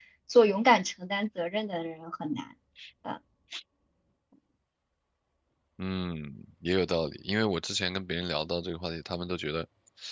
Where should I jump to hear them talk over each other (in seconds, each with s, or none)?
none